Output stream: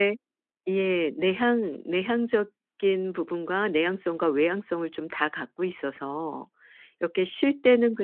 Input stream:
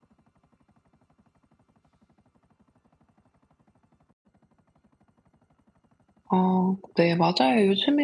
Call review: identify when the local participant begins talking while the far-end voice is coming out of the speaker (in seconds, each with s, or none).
6.3 s